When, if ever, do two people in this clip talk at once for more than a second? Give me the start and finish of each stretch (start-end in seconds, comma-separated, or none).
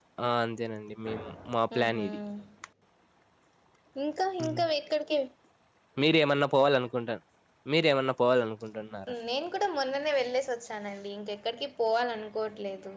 none